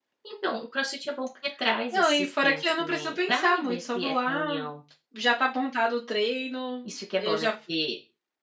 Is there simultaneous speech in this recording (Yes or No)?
Yes